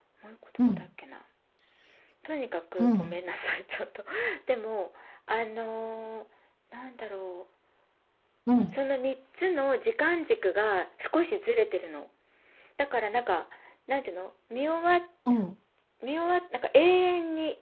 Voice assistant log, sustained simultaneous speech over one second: none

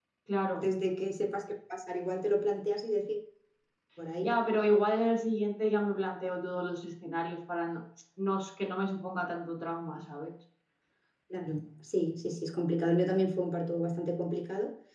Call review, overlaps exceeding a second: none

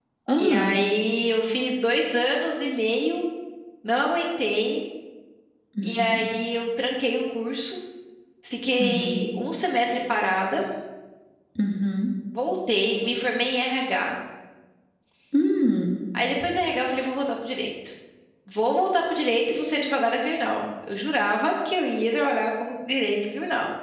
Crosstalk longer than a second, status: none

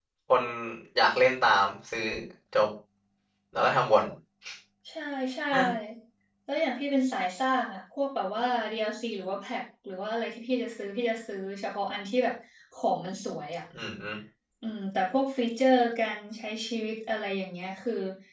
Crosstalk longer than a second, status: none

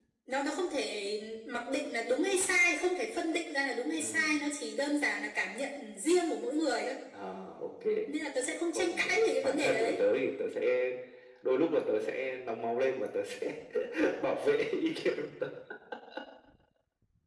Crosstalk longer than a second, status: present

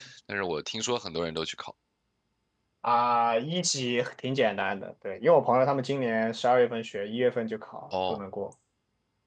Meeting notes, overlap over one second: none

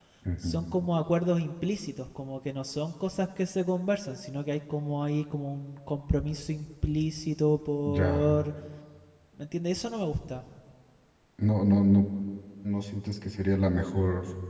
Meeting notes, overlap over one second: none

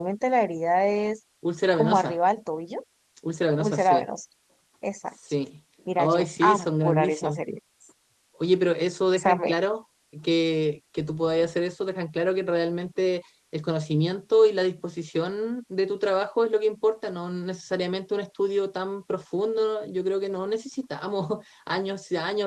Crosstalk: present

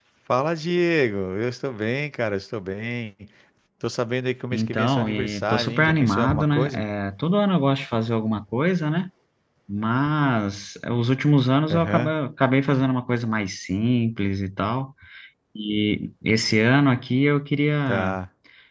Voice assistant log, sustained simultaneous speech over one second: present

